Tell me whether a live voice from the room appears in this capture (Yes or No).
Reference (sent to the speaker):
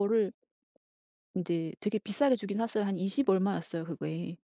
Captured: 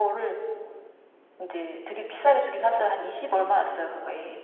No